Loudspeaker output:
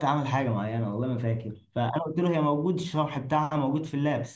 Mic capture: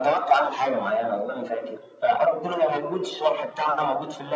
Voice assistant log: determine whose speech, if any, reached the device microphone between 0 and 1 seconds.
echo only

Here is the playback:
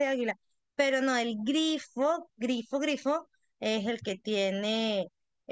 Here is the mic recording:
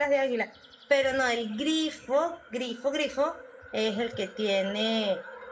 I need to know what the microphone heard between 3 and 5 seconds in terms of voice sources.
echo only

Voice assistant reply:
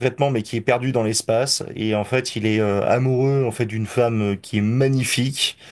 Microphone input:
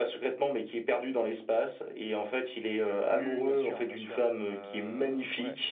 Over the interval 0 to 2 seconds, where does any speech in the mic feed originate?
echo only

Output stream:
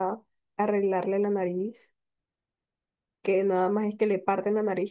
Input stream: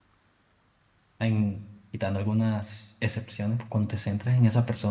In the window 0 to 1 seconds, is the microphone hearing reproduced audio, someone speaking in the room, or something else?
neither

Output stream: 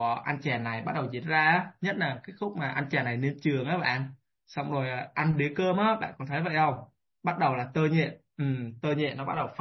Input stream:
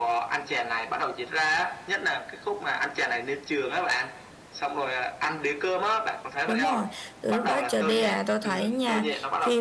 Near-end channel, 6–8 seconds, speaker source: both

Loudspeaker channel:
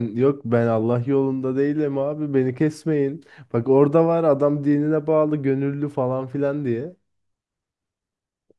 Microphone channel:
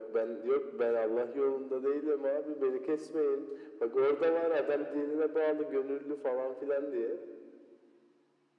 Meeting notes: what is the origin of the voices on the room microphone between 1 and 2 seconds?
echo only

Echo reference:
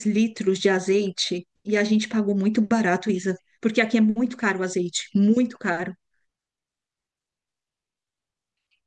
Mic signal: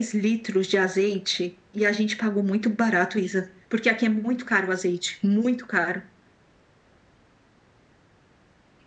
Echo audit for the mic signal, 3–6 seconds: echo only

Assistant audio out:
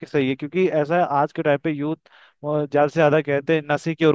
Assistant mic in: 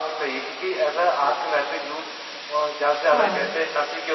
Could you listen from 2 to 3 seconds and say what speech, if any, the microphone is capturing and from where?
echo only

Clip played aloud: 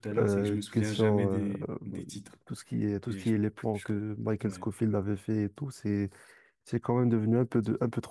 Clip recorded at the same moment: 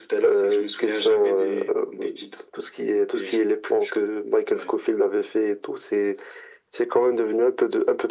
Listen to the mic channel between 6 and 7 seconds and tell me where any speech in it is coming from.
echo only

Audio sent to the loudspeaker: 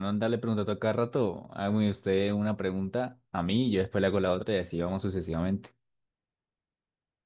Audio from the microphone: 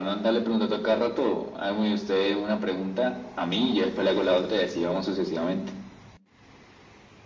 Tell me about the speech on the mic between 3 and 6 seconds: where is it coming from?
echo only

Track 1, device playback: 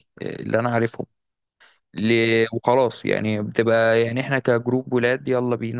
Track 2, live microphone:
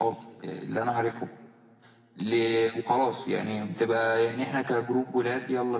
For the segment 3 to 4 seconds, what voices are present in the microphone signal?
echo only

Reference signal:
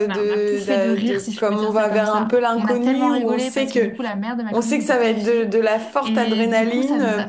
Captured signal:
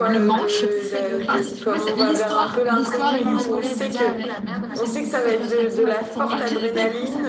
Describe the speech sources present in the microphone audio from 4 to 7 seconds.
both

